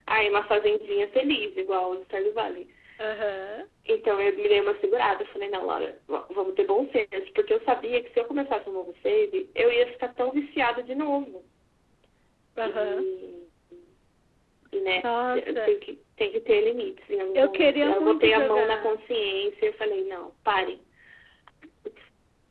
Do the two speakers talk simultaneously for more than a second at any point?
Yes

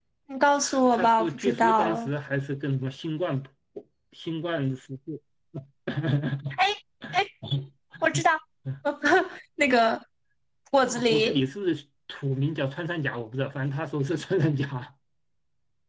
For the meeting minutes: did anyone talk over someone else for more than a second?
Yes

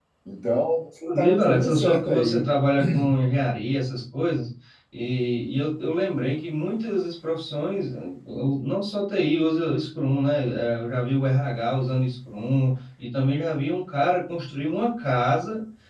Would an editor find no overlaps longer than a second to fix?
No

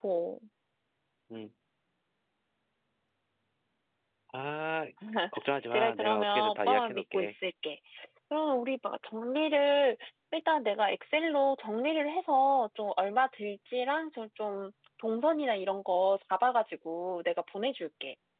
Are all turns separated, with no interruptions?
No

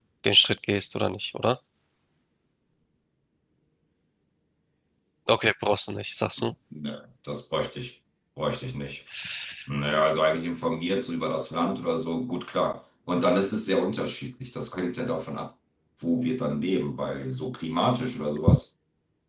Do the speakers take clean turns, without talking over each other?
Yes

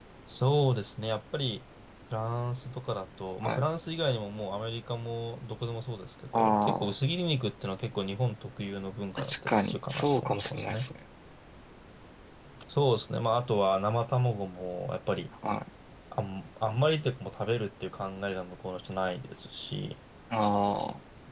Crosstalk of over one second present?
Yes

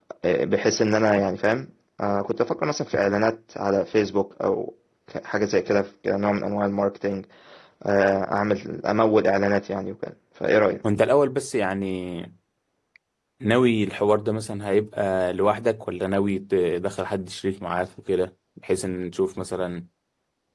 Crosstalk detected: No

